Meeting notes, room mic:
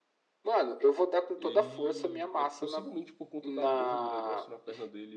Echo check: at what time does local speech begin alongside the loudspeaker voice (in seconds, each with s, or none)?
1.3 s